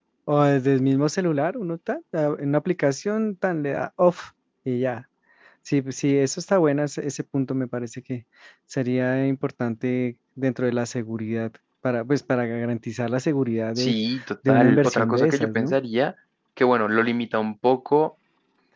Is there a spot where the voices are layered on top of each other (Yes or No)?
Yes